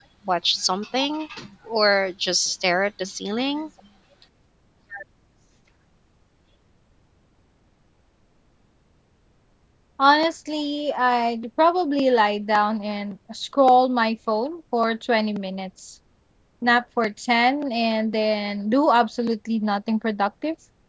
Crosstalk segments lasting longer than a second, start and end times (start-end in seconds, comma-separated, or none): none